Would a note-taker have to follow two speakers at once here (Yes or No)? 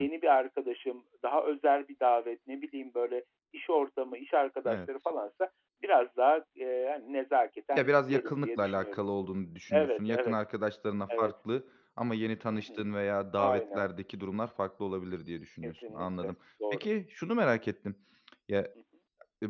Yes